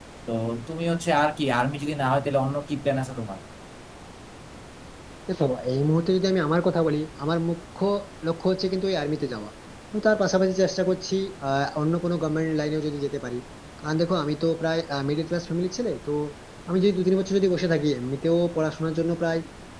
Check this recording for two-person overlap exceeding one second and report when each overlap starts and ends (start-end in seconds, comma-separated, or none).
none